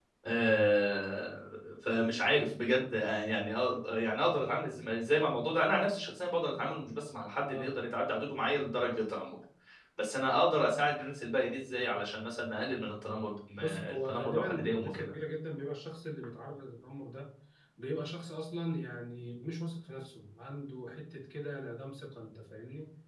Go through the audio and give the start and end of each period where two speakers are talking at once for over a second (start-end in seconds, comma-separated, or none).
13.6-15.1